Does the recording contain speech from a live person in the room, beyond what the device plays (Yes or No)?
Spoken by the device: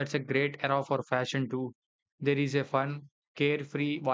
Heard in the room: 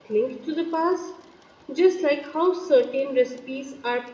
Yes